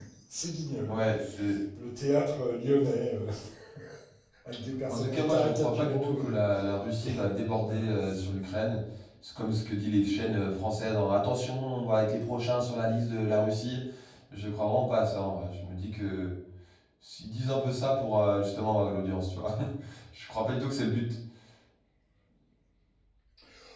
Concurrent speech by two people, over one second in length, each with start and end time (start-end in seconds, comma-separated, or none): 4.9-6.4